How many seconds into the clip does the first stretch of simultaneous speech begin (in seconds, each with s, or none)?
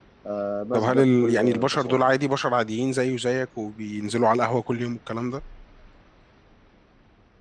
0.7 s